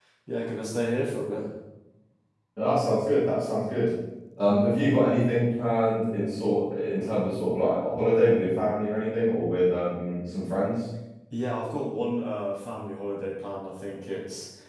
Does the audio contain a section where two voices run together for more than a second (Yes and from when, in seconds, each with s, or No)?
No